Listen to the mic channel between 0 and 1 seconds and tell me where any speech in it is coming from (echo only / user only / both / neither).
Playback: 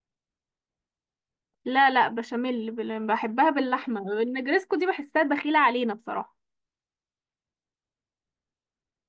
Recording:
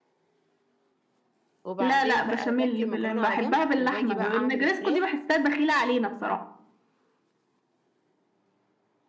neither